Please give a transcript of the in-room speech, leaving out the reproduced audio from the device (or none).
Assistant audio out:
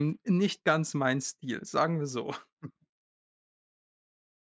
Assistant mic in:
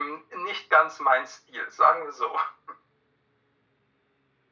none